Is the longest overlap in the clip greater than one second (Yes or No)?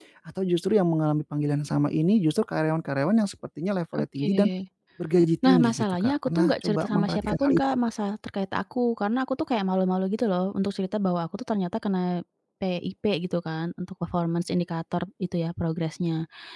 Yes